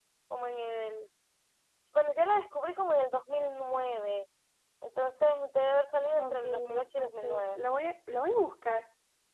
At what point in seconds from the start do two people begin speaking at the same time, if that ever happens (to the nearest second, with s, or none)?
6 s